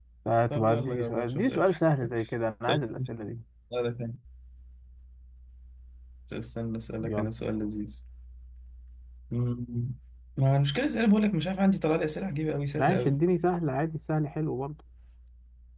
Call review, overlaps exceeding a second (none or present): present